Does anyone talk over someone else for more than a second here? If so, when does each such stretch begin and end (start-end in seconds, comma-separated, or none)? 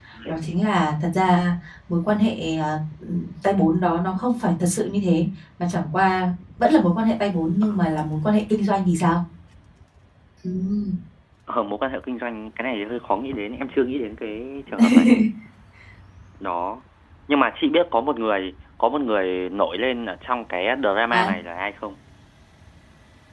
none